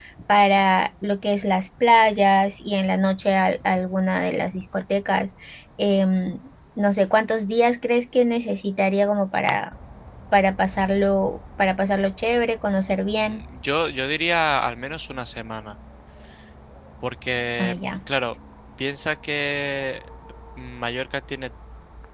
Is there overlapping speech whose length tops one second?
No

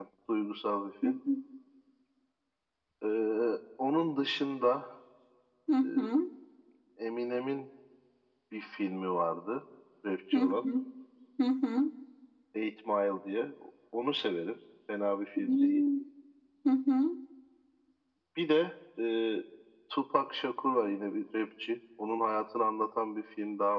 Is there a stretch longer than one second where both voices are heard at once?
No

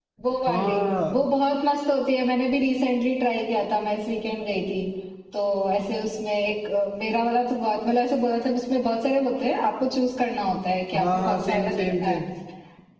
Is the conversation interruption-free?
No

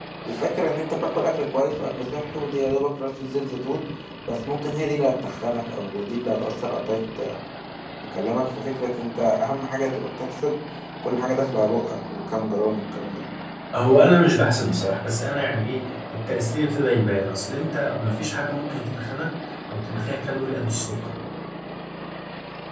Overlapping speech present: No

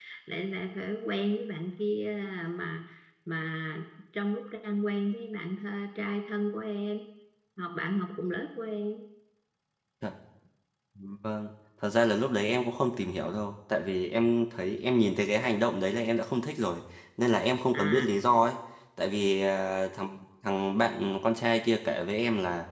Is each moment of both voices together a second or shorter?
Yes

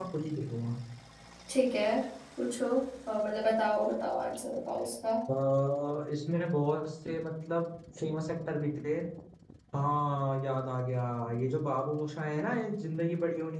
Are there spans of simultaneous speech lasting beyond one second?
No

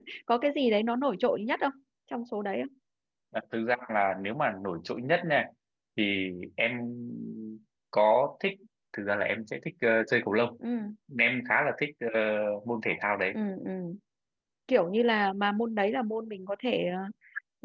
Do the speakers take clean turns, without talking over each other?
Yes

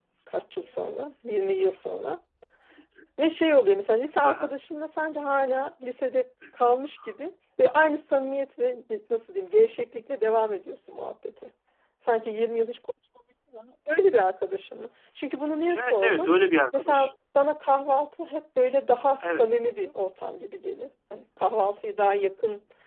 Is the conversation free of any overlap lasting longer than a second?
Yes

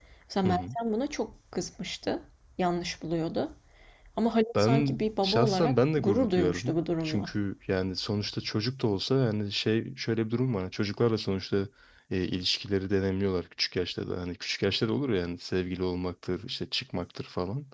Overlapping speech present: Yes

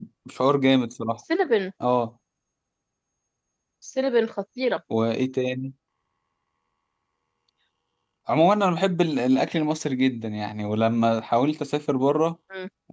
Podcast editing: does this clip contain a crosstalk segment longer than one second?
No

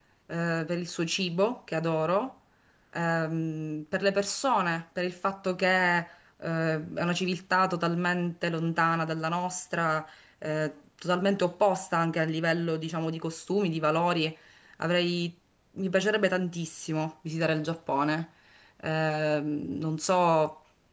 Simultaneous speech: No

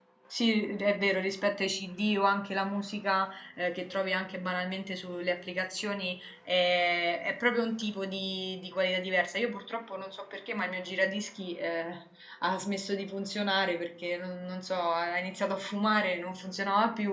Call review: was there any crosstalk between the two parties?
No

